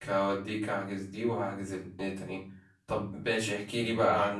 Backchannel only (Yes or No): Yes